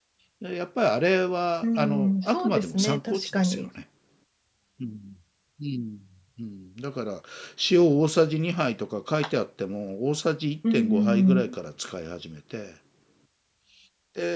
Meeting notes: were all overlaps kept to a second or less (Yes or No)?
No